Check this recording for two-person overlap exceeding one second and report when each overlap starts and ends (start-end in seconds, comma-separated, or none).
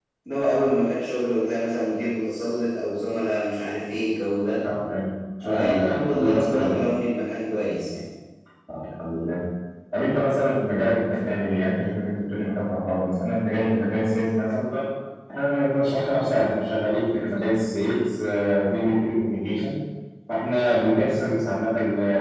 5.4-6.8